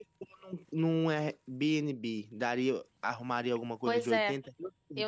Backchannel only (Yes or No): No